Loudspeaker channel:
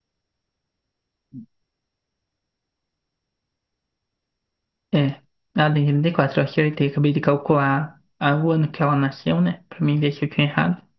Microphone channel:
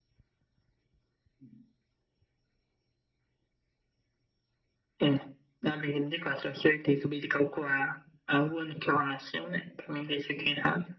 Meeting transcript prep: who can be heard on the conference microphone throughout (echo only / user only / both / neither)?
echo only